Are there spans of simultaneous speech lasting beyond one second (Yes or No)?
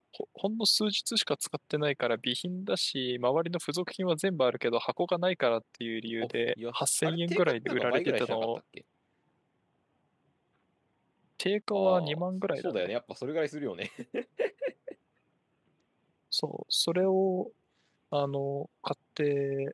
Yes